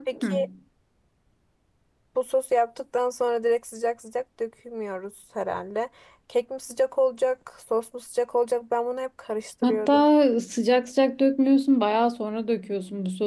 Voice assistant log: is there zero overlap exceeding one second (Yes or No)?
Yes